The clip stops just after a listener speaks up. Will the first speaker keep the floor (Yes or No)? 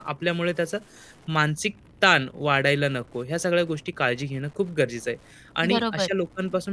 Yes